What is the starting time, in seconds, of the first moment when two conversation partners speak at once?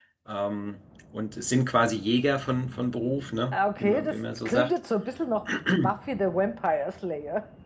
4 s

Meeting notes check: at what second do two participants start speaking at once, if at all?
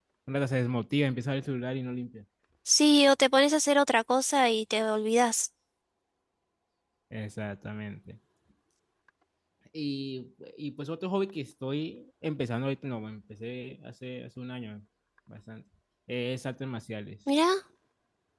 none

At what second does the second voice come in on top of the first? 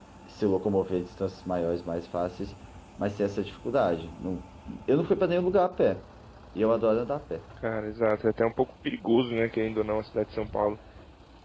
none

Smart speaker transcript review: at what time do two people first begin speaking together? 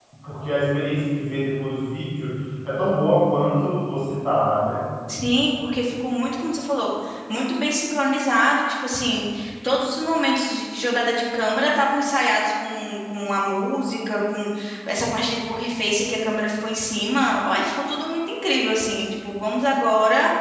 none

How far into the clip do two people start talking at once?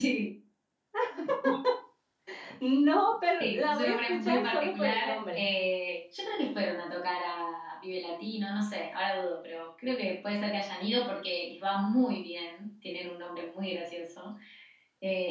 3 s

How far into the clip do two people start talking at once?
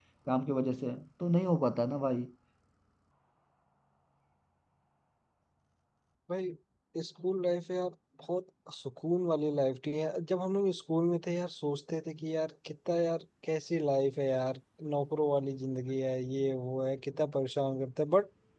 none

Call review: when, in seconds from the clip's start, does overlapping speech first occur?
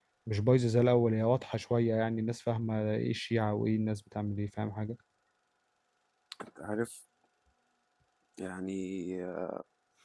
none

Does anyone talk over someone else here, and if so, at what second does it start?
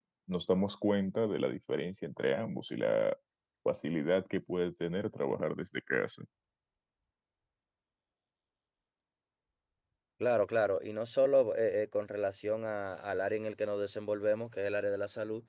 none

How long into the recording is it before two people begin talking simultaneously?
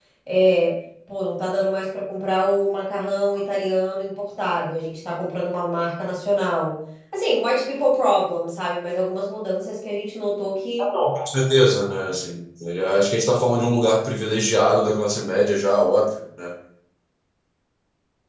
none

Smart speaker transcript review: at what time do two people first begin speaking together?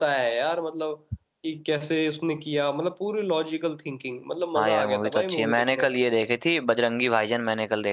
5 s

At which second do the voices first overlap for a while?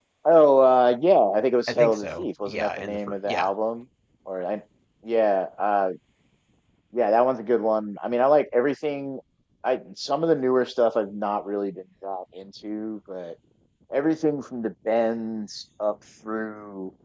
2 s

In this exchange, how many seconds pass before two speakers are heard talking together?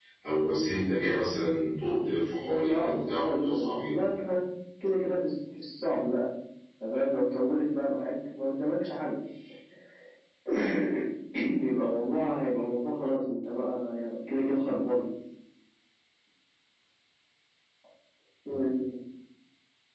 2 s

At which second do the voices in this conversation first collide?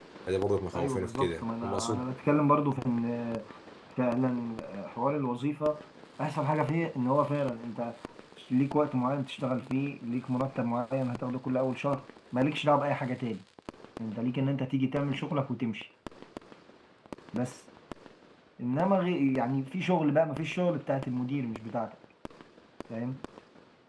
1 s

